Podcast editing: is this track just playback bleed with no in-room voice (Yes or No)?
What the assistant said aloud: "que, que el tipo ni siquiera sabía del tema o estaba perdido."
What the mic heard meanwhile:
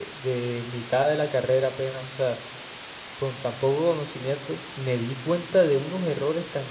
No